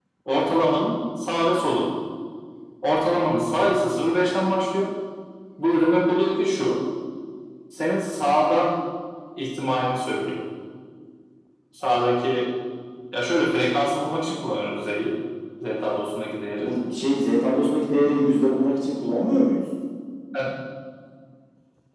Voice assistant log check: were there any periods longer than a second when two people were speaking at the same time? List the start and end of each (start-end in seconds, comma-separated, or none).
none